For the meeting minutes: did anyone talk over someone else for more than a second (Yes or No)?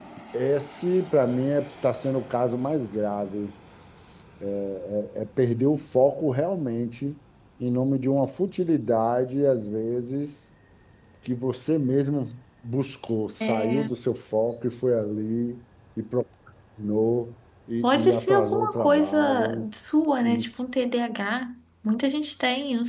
Yes